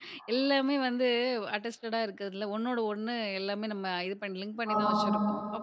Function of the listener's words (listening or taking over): listening